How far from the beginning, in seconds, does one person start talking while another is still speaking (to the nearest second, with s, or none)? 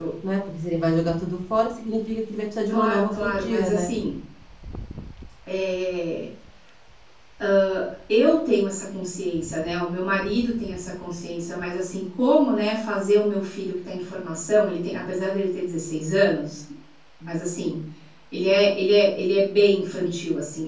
3 s